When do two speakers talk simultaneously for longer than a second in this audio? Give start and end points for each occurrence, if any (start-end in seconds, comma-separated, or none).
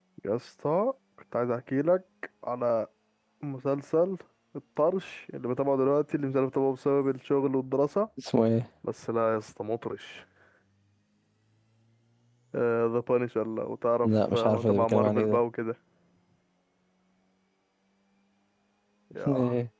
14.0-15.4